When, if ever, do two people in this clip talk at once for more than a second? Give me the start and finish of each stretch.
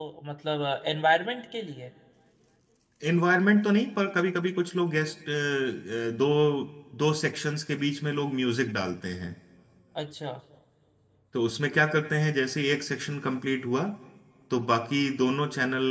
none

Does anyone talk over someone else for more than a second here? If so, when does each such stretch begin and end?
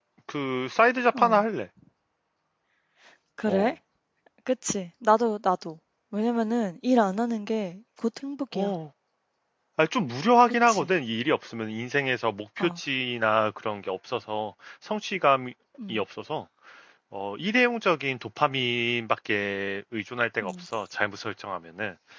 none

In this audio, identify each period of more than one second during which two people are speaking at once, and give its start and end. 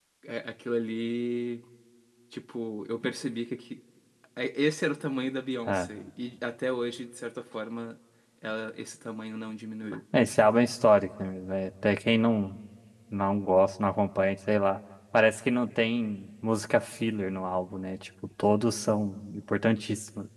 none

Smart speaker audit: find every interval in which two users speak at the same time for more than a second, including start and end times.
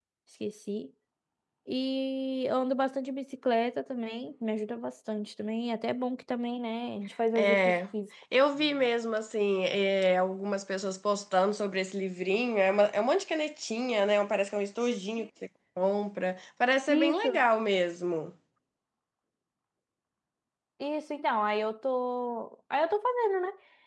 none

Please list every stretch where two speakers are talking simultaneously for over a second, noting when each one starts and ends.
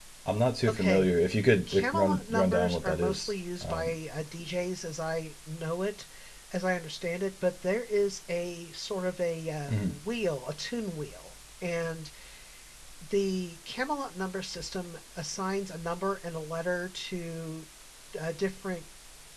1.7-3.9

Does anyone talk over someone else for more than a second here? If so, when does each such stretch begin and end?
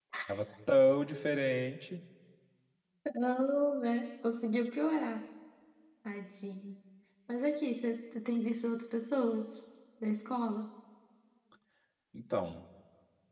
none

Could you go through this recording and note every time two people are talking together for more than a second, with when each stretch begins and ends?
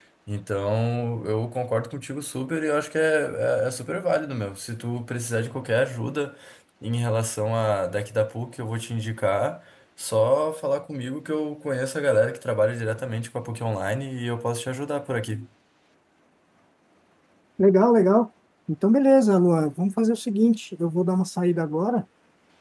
none

